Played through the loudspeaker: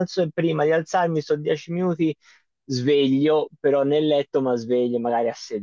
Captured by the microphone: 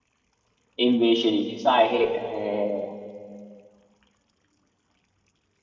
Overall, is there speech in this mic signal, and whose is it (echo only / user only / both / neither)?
user only